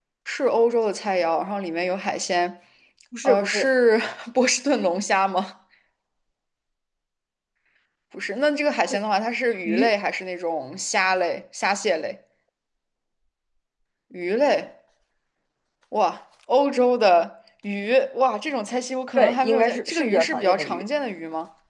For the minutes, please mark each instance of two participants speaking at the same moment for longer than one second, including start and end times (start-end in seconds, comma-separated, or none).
19.1-20.8